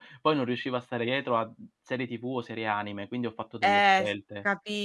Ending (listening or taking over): taking over